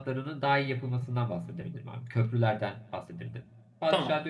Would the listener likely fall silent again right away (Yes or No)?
Yes